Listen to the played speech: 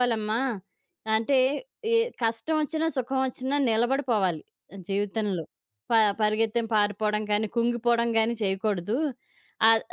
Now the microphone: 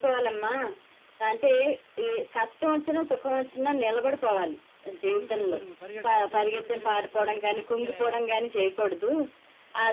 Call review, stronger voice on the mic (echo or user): echo